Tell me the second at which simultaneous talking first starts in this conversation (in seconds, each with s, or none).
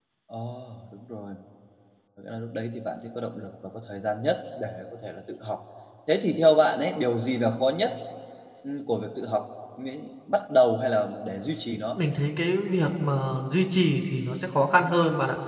none